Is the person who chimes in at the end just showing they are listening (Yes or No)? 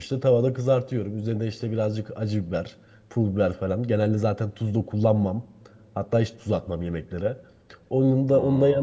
Yes